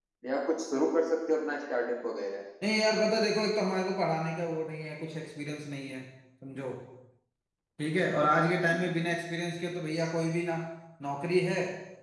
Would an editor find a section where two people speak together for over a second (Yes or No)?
No